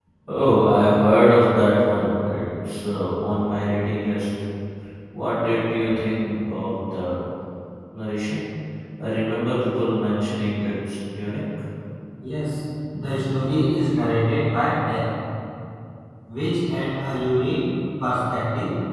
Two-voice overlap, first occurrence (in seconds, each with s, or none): none